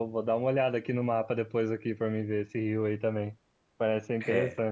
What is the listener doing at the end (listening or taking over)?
listening